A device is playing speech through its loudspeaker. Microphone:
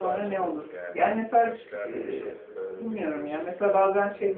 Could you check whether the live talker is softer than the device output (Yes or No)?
No